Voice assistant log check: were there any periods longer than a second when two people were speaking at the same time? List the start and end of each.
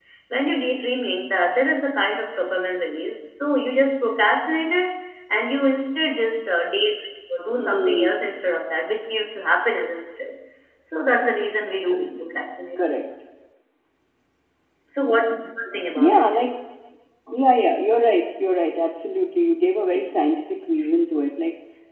none

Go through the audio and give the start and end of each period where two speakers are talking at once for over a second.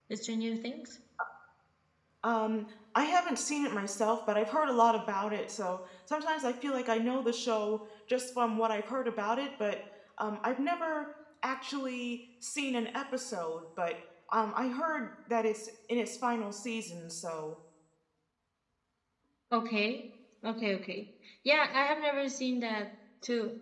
none

